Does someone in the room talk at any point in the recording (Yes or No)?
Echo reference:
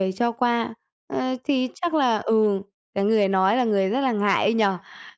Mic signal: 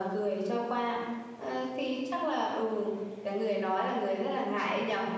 No